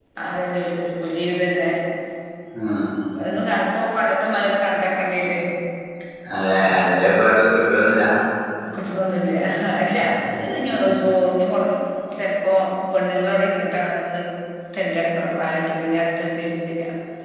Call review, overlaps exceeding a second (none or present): none